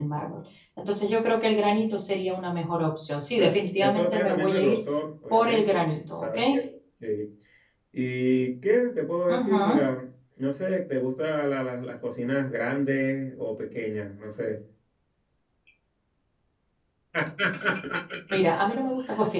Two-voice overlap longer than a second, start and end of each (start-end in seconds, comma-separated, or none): 3.4-4.8